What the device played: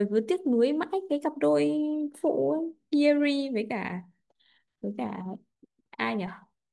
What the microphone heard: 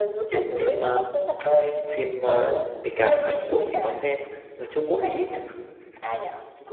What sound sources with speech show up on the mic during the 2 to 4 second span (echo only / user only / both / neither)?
both